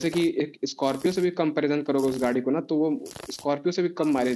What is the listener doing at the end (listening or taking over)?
listening